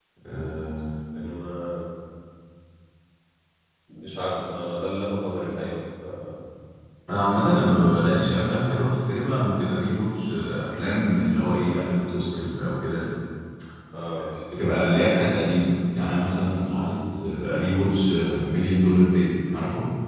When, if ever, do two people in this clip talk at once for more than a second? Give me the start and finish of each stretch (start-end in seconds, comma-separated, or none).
none